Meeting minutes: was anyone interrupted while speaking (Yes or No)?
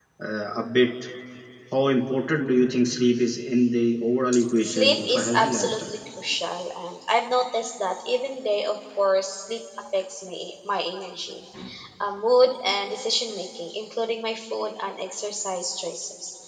Yes